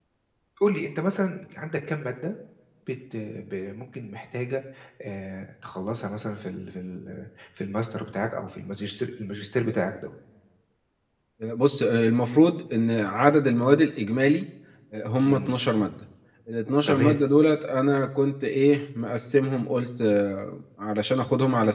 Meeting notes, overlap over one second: none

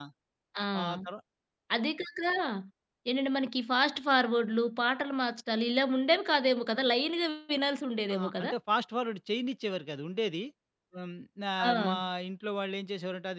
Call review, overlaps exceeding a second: none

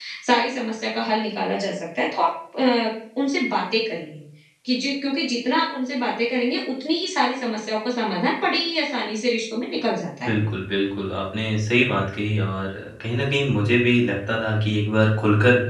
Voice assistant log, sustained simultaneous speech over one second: none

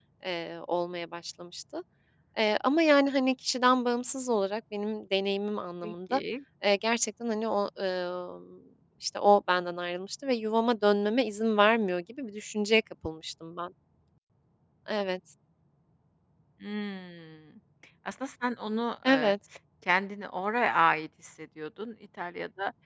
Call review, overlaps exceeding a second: none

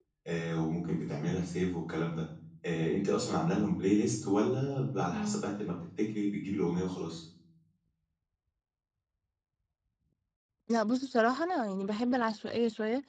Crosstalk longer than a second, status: none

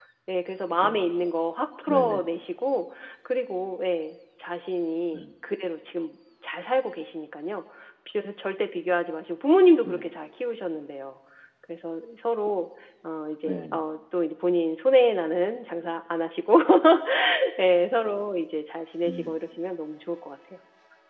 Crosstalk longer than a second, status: none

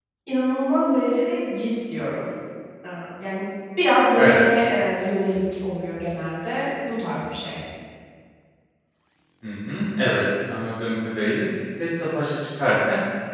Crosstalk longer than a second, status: none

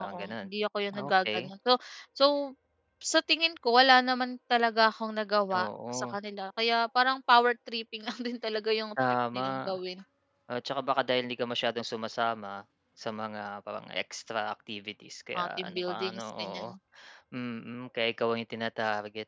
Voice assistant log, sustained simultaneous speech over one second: present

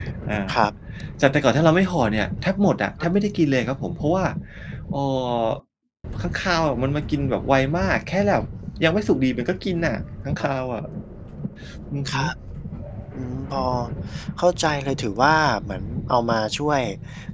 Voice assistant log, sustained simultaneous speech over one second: none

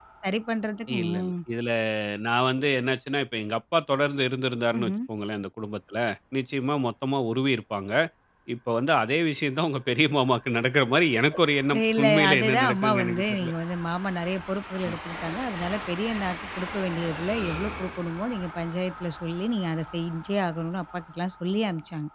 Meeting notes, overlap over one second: present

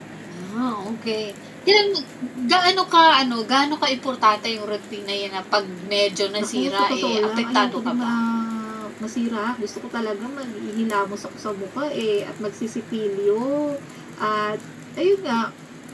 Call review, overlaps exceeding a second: present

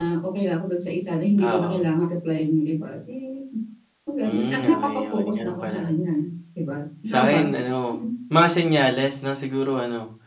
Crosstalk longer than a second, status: present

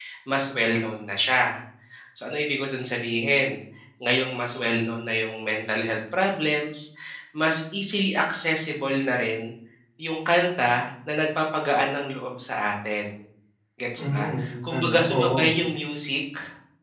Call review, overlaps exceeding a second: present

